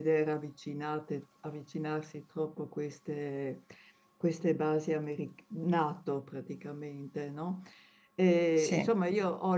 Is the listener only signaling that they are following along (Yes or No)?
Yes